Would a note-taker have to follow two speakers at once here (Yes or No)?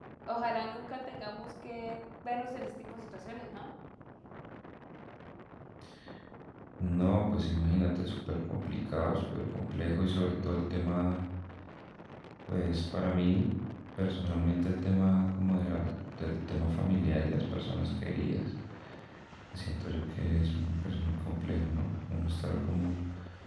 No